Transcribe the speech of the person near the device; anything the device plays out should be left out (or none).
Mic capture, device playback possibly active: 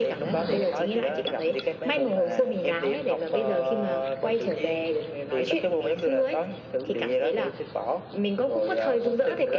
none